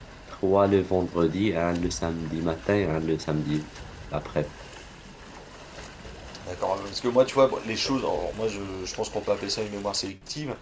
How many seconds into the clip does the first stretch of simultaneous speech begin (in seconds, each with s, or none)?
none